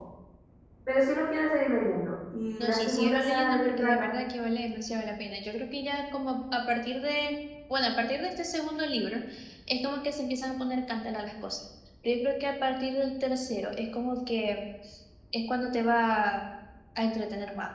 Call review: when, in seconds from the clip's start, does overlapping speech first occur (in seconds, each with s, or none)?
2.6 s